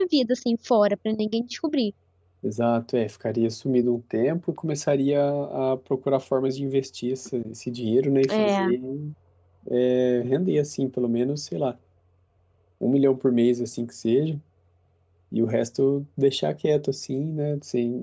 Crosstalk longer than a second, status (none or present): none